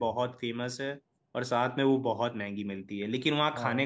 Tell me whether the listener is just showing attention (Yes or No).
Yes